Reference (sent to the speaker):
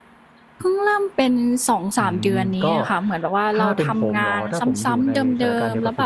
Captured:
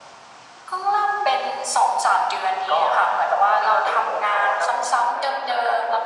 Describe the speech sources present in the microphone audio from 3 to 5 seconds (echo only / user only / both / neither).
echo only